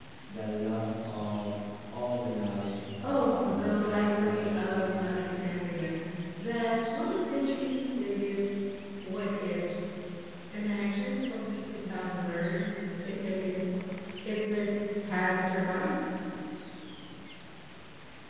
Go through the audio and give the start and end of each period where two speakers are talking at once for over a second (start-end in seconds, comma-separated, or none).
3.0-4.9